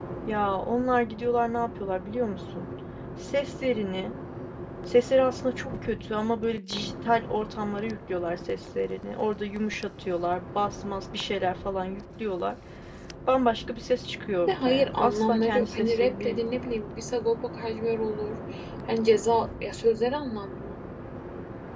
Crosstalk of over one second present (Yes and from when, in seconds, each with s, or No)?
Yes, from 14.5 s